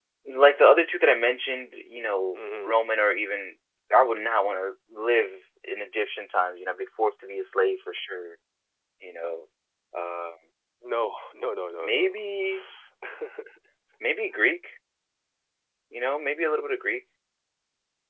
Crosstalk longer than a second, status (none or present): none